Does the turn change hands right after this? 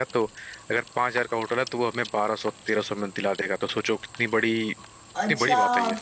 Yes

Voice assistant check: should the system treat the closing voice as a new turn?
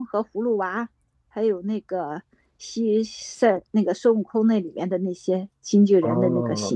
Yes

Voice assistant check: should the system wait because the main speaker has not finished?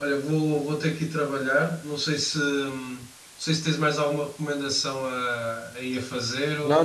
No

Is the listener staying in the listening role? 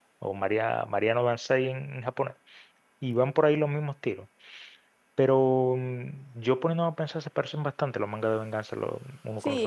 No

